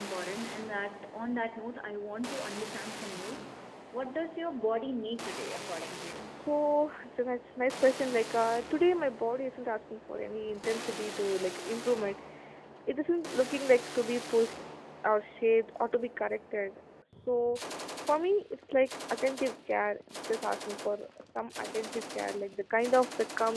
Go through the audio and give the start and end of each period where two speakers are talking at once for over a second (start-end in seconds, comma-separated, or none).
none